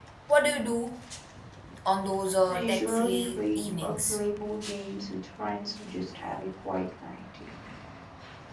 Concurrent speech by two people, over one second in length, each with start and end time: 2.5-4.2

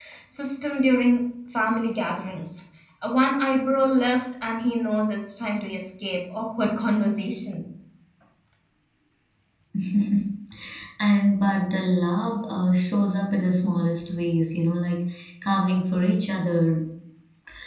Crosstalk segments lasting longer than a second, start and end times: none

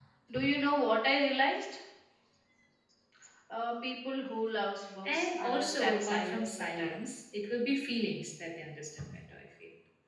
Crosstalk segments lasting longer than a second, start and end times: 5.0-7.0

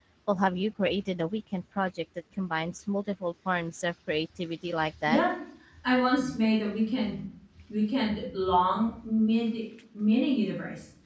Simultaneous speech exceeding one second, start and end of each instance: none

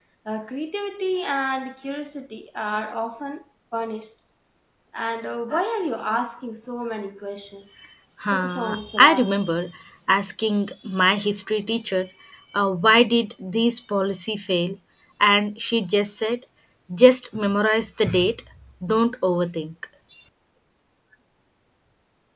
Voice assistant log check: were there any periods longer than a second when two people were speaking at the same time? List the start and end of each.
8.3-9.6

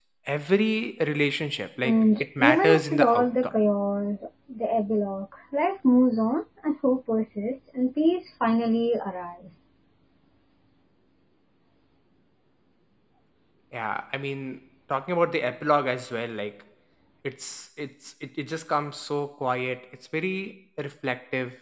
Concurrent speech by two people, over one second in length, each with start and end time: 1.8-3.5

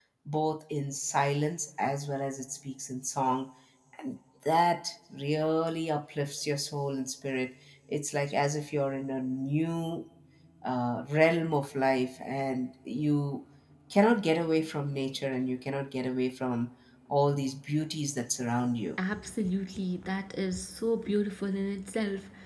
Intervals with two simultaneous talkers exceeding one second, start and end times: none

